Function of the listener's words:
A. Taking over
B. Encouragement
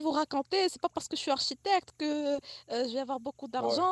B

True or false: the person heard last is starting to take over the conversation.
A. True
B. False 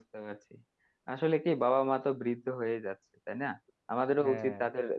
B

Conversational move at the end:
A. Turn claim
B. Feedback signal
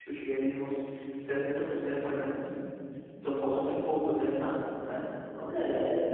A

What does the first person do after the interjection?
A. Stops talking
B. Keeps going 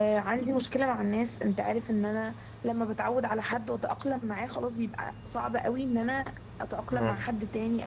B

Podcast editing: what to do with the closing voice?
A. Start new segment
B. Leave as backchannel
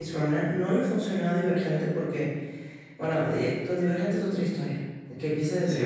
B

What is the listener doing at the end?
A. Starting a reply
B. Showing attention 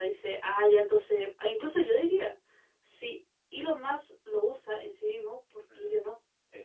A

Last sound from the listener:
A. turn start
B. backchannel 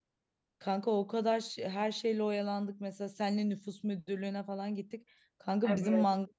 B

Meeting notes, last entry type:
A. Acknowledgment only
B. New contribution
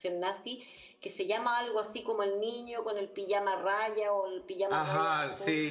B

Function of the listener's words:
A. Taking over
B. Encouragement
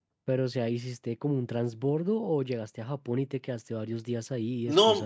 A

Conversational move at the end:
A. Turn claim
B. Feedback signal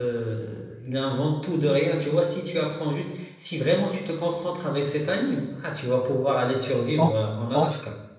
A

